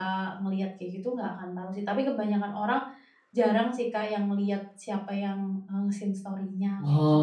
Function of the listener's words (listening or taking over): taking over